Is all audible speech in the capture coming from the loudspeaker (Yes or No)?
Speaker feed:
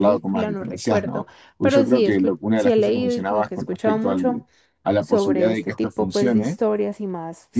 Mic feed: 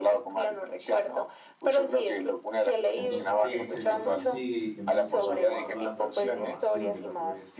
No